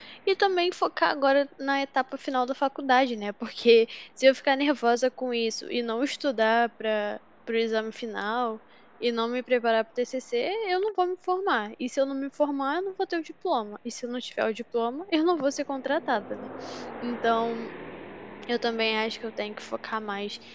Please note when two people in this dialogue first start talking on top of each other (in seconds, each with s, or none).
none